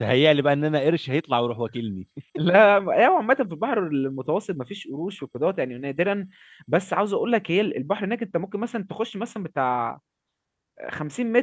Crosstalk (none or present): none